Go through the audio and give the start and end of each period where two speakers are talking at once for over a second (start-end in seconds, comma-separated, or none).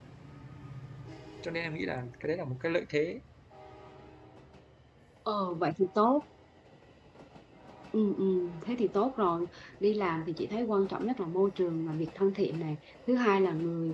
none